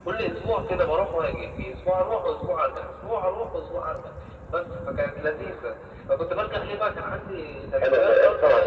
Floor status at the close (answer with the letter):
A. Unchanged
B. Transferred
B